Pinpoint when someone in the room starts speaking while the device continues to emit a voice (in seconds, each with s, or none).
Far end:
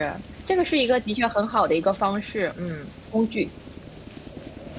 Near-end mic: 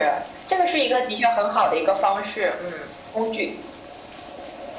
none